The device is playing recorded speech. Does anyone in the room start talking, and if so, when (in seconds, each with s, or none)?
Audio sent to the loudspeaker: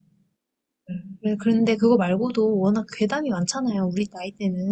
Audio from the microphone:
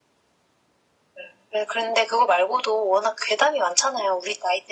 none